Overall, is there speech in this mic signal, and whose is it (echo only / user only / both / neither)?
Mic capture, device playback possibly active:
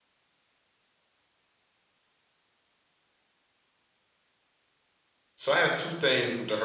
user only